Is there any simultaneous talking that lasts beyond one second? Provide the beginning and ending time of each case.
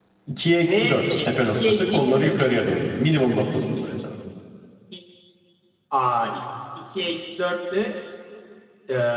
0.6-2.5

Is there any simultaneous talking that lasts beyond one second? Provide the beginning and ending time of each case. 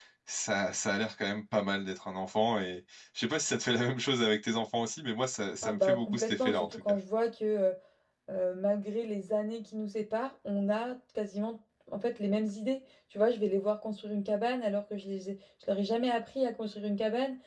5.6-7.0

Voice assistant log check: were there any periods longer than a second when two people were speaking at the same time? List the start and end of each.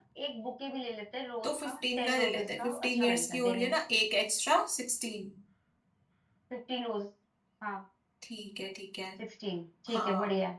1.4-3.8

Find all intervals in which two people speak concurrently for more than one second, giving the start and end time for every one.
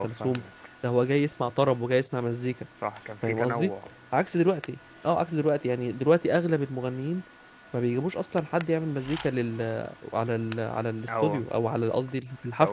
none

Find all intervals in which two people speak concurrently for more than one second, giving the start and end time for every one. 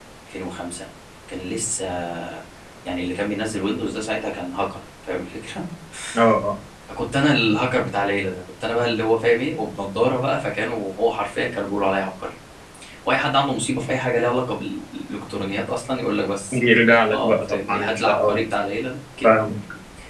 17.1-18.4

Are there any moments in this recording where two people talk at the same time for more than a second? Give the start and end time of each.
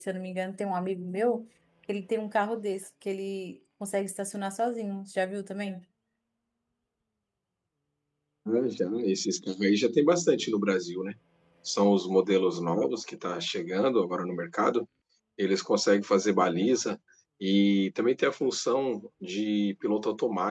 none

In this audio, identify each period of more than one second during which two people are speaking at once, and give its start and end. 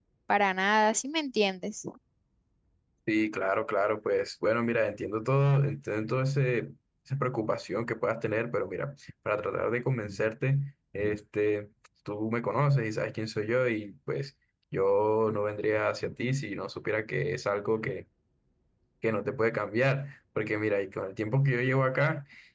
none

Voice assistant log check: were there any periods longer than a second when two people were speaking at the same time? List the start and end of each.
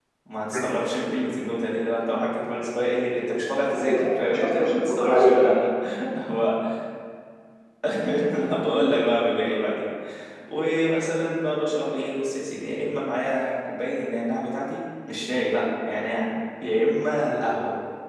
3.8-5.5

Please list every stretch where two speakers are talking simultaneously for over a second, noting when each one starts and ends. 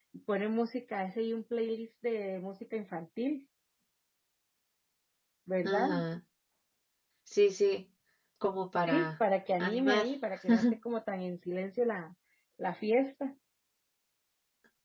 none

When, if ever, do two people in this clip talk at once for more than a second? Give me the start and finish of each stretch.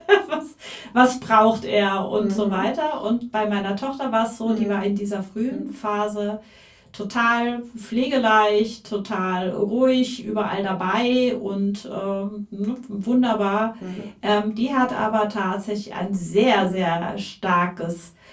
none

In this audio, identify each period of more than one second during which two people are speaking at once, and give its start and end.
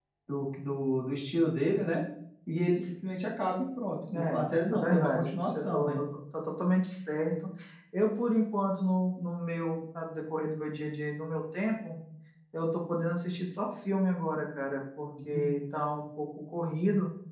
4.1-6.0

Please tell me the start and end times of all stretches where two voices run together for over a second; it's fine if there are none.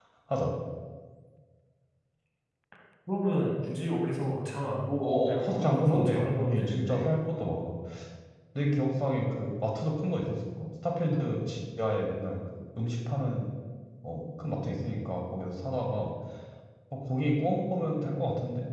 5.0-7.1

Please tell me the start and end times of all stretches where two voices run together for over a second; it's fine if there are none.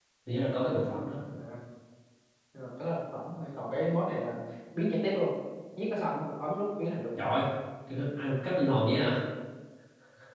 none

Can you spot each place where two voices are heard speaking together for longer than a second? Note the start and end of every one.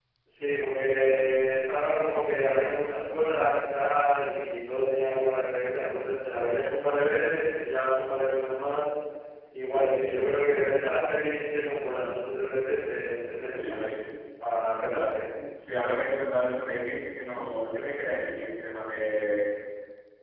none

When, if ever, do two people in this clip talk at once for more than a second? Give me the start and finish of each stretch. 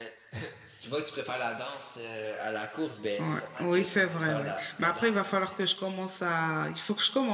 3.2-5.5

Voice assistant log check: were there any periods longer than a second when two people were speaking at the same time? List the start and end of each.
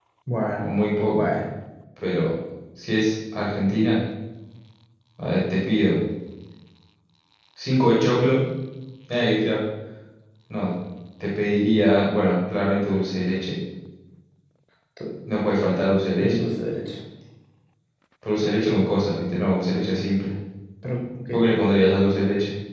none

